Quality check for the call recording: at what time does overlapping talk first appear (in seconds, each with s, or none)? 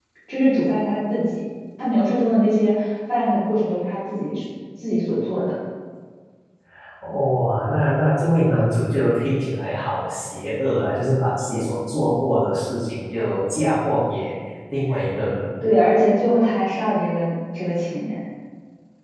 none